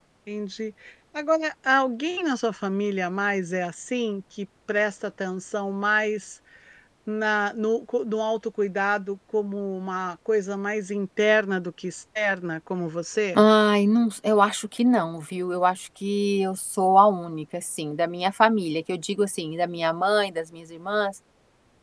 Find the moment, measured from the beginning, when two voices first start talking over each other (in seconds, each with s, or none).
none